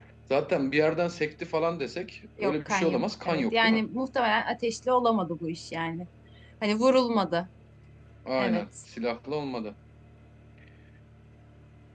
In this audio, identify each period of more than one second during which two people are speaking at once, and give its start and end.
2.4-3.8

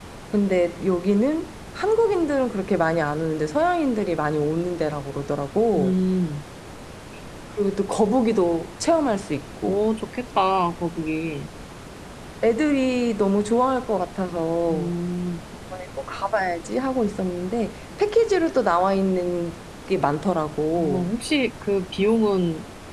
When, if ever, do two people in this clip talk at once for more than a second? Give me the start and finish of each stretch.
none

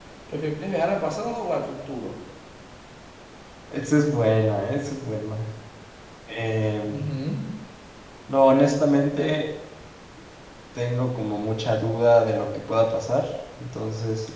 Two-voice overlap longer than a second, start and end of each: none

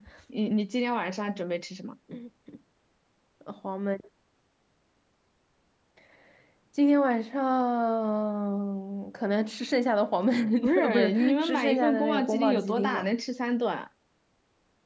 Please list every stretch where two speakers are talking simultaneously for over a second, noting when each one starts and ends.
10.8-13.1

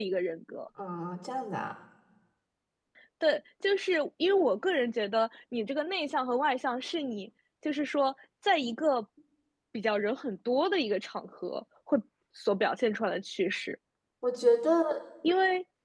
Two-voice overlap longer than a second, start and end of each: none

